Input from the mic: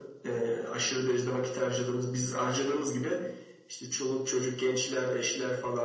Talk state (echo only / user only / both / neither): echo only